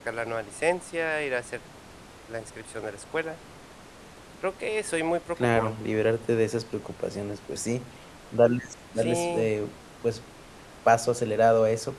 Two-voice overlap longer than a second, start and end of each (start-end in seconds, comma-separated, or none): none